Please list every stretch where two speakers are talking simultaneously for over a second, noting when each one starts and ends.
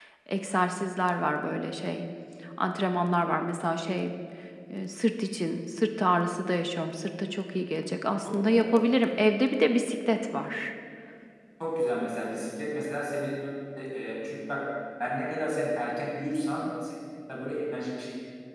none

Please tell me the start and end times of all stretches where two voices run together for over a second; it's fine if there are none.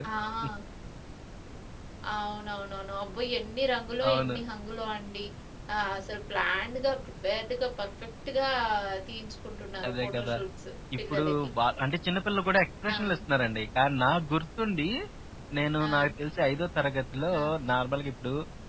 none

